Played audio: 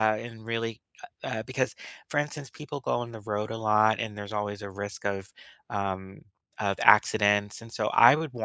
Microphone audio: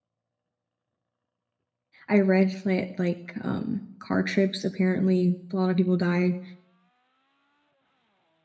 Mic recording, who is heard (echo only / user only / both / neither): user only